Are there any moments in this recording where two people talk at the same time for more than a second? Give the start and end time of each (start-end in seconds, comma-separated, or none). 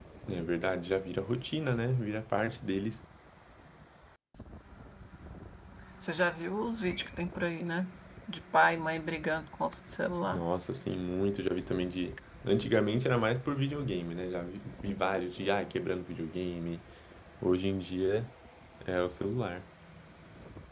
none